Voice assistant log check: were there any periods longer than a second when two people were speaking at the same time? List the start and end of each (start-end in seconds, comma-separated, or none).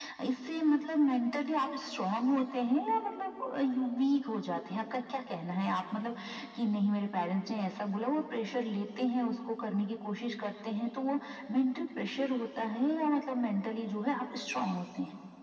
none